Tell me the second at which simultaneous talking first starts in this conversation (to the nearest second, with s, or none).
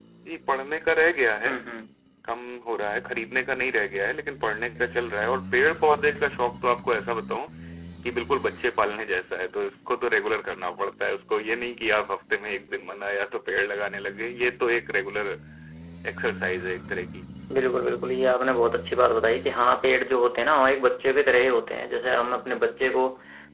none